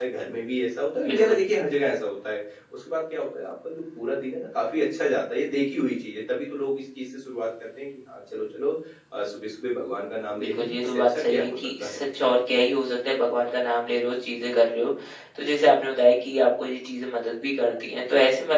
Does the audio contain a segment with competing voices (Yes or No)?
Yes